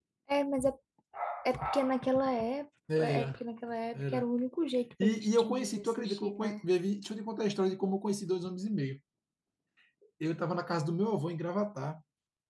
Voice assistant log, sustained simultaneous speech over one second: present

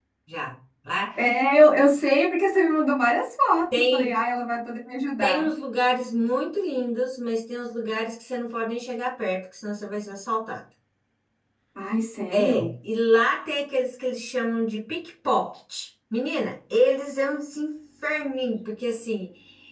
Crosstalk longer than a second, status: none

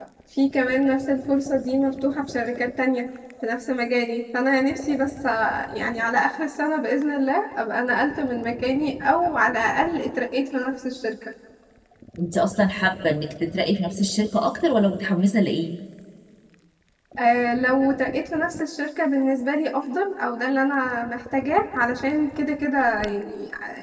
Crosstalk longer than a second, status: none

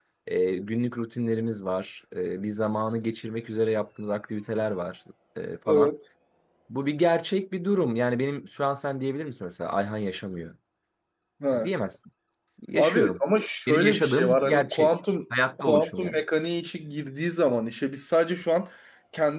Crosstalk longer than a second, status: present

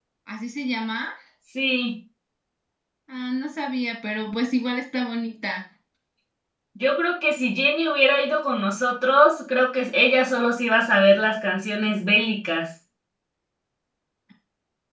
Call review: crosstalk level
none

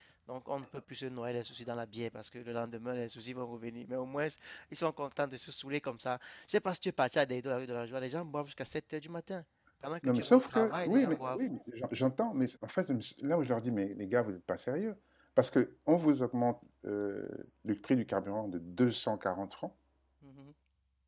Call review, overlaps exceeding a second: present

